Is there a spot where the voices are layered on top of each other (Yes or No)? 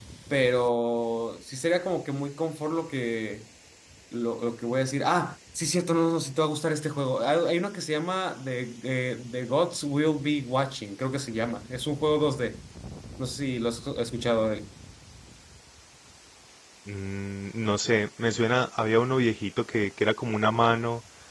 No